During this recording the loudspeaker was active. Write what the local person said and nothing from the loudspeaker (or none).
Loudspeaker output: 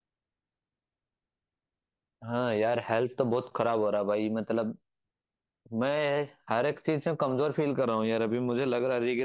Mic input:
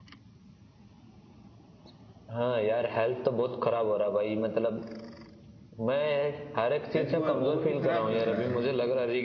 हेल्थ को और भी खराब कर रहा है